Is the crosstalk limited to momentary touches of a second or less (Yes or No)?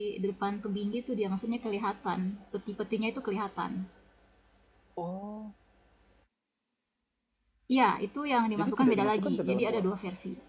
No